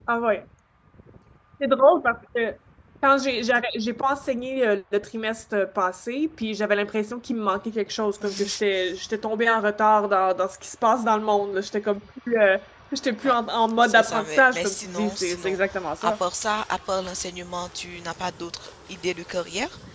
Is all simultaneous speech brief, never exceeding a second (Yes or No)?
No